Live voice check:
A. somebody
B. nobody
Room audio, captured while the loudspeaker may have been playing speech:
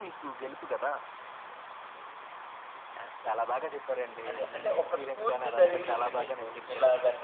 A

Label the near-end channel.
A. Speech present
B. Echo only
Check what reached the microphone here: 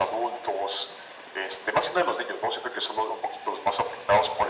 B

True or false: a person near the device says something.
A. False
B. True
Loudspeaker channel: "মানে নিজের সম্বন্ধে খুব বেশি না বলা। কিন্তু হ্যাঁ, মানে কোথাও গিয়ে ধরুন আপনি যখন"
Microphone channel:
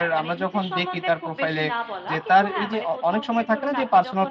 B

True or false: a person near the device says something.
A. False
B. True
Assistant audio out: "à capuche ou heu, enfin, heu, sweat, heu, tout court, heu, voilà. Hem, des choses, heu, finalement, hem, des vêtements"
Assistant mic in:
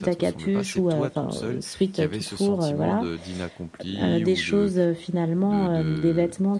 B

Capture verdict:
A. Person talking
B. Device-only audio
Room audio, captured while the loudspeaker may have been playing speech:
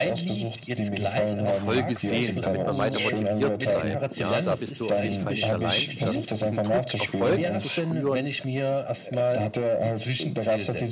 A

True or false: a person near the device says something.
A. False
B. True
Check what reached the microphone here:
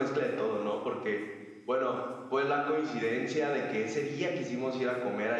A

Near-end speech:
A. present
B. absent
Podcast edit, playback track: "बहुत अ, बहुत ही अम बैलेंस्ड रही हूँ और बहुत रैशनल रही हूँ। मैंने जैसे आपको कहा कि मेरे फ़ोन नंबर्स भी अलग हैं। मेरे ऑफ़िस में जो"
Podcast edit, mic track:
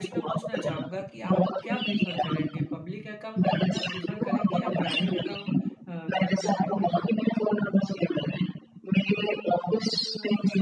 A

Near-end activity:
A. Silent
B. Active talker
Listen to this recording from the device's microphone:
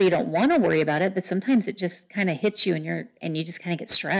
A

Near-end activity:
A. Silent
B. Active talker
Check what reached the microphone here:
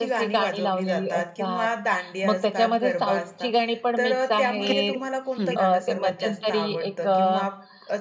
B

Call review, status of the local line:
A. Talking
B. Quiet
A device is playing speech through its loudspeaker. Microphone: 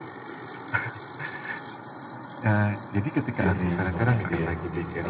A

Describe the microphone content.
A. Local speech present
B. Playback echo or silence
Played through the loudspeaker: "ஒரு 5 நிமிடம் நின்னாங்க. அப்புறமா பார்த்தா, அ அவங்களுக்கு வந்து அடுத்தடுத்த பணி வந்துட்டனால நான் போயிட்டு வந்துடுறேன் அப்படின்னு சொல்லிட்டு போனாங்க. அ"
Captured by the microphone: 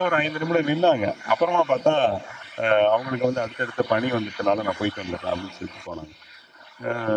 B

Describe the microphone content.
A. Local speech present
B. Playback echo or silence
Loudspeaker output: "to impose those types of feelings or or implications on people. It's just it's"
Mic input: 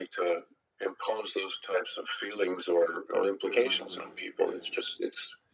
A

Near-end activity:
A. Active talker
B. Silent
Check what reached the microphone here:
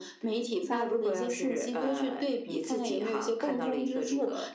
B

